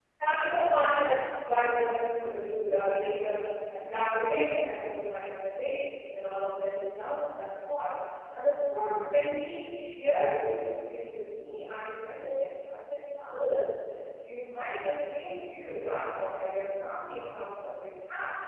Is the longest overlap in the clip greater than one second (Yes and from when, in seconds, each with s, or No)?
No